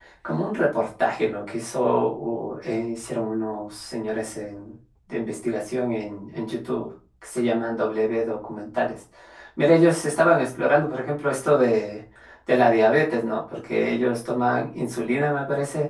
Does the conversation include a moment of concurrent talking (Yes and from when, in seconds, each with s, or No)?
No